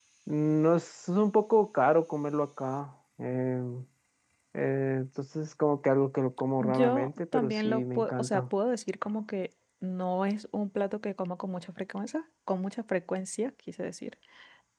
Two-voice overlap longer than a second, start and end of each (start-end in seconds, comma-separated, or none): 6.6-8.4